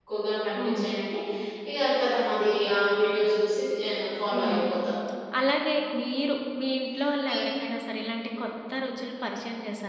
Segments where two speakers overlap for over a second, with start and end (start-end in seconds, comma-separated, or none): none